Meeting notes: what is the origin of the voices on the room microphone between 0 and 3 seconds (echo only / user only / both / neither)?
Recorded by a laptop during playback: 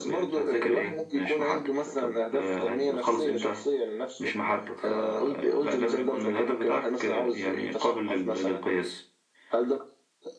echo only